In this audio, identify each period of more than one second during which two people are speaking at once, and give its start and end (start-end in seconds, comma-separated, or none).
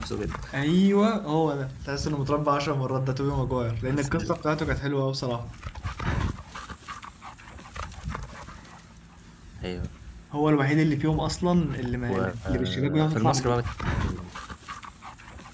12.1-13.6